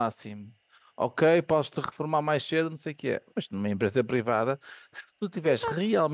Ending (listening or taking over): listening